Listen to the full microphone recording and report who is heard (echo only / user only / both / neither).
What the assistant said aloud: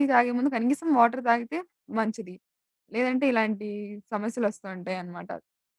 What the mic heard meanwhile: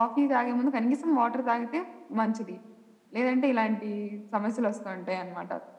echo only